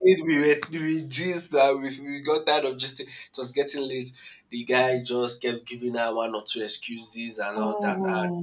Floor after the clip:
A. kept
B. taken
A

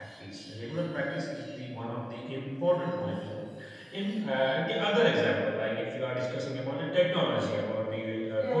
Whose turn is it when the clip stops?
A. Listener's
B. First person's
B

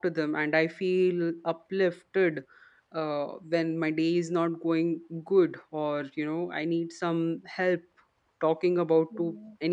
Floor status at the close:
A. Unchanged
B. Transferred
A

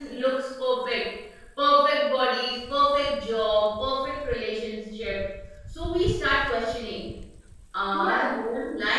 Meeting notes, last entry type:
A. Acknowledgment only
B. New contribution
A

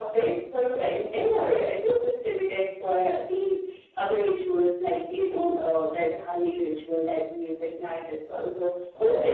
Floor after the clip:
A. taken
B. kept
B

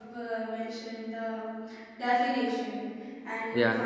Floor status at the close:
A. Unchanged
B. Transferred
A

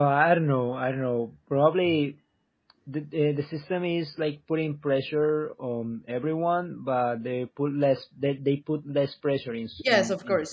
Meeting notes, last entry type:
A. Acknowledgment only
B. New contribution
B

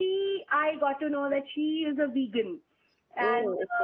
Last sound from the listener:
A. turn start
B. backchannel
B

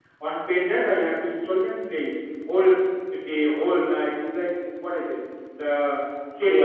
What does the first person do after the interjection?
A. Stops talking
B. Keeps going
B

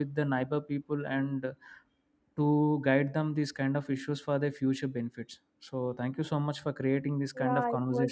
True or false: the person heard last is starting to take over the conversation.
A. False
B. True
B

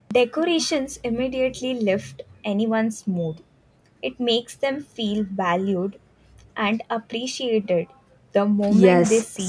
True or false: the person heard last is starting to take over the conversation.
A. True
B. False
A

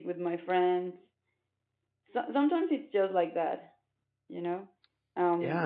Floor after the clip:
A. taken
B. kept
A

